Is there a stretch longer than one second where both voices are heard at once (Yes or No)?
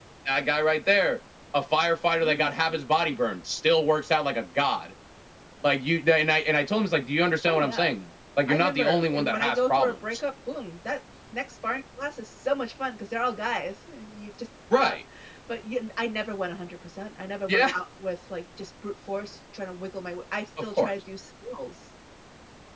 Yes